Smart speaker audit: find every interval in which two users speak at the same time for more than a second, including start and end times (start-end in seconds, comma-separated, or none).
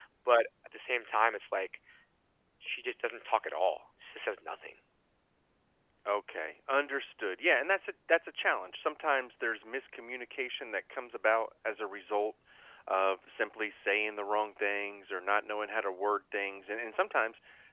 none